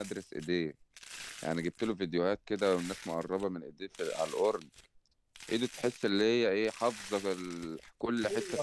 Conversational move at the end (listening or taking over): taking over